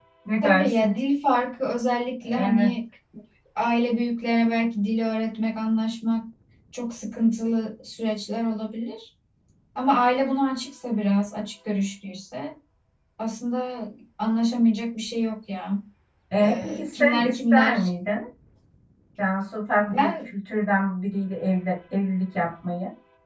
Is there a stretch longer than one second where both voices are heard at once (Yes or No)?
Yes